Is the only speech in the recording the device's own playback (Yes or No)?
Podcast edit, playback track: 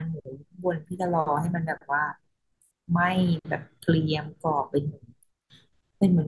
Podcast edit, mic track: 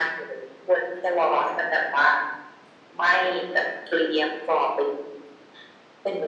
Yes